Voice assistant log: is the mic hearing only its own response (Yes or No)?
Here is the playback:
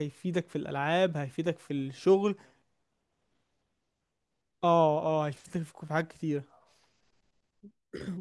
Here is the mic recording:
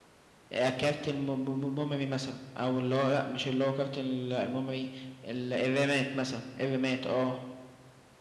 No